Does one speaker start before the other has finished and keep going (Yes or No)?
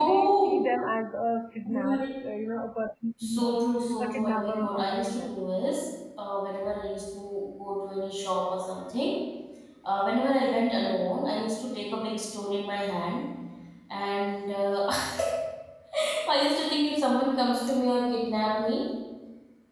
Yes